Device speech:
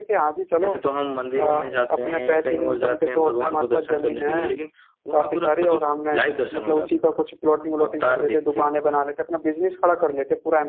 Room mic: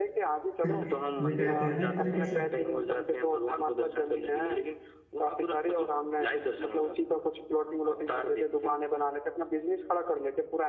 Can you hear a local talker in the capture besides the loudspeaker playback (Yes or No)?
Yes